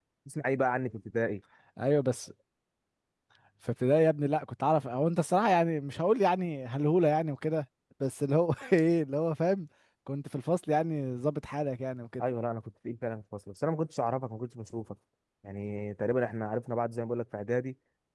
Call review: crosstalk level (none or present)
none